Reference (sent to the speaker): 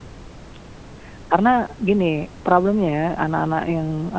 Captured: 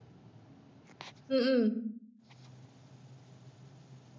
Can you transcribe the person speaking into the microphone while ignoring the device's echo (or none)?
Mhm.